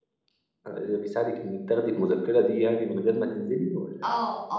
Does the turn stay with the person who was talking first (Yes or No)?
No